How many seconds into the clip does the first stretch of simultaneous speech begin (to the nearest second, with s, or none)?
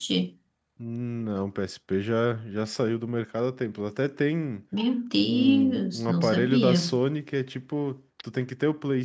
5 s